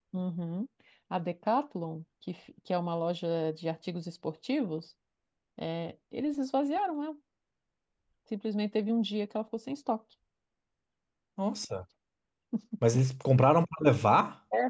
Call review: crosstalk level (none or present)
none